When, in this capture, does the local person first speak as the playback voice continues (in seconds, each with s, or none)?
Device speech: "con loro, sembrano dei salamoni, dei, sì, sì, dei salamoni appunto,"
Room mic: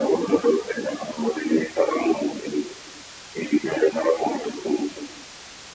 none